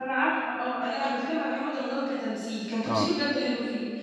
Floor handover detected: No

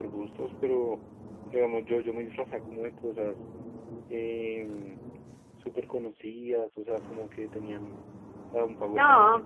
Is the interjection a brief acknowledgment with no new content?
No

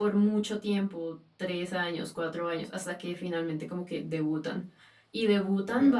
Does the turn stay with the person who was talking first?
Yes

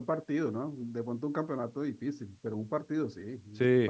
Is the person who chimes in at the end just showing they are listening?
No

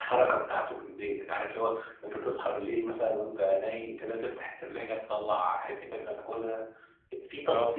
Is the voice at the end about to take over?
No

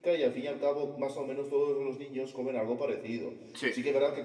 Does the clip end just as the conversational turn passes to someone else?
No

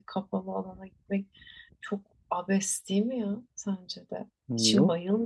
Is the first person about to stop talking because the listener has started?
Yes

